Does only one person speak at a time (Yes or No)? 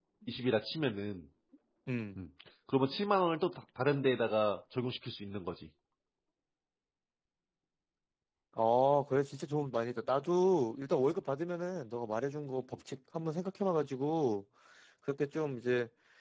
Yes